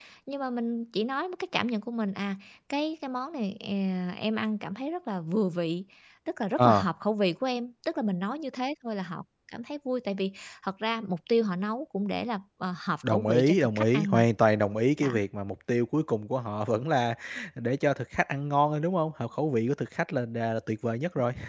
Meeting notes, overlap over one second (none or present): present